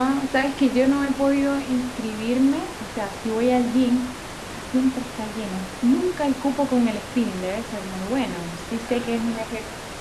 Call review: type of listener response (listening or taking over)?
listening